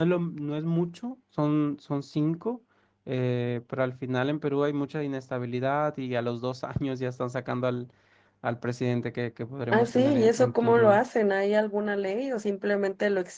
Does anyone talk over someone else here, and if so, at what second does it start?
9.7 s

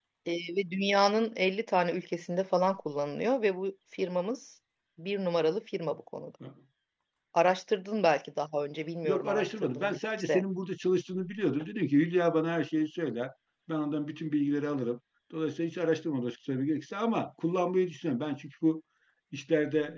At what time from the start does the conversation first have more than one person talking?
9.0 s

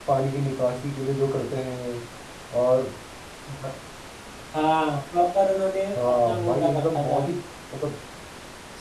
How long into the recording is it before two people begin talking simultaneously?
6.0 s

